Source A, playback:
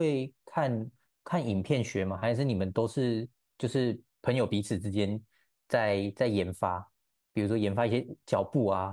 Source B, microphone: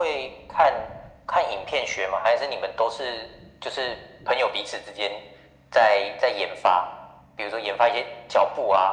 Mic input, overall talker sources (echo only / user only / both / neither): echo only